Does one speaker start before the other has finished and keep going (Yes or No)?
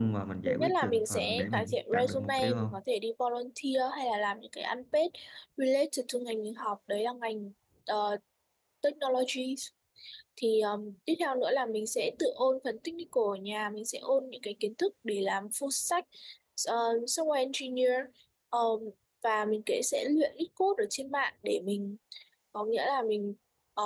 Yes